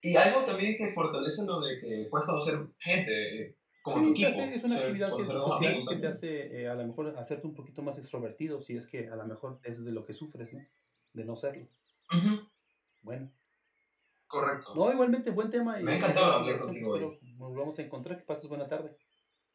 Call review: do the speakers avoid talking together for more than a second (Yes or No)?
No